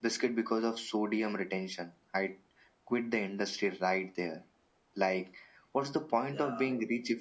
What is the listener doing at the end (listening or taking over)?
listening